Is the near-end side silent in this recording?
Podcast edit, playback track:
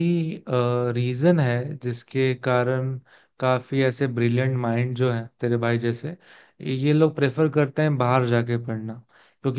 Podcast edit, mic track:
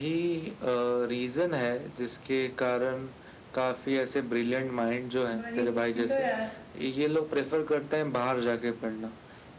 No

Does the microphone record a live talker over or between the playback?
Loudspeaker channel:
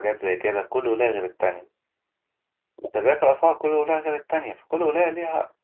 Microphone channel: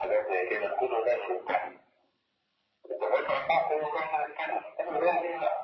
No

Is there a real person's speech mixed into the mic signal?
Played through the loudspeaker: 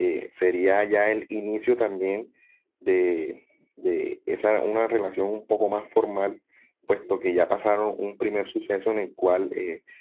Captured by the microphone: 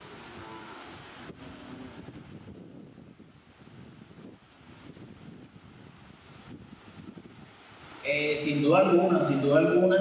Yes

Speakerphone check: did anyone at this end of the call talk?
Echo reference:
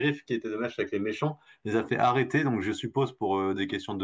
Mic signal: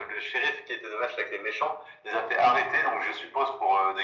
No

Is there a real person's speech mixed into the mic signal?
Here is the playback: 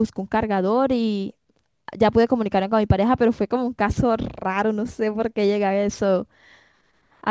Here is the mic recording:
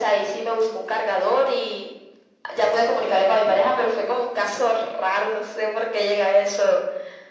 No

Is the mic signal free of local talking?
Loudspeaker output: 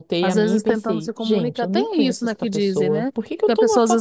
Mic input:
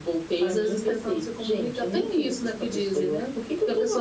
Yes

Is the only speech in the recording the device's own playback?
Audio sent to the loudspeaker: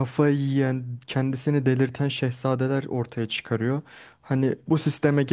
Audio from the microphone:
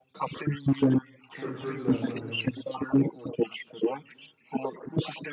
No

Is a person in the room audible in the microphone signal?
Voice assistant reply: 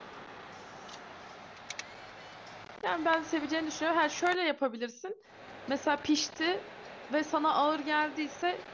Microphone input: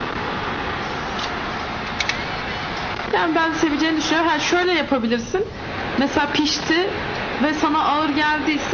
No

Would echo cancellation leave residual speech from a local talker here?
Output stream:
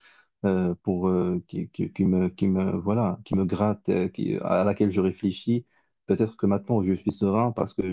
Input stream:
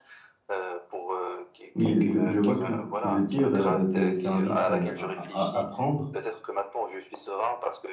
Yes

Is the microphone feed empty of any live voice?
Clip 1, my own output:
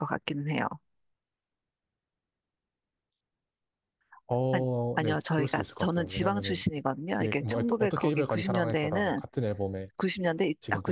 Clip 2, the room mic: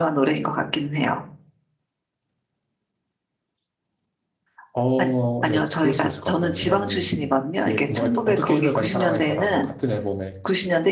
Yes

